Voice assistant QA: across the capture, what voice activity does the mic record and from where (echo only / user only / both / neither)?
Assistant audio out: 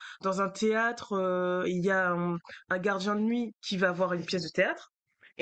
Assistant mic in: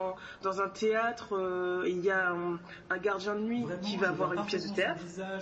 both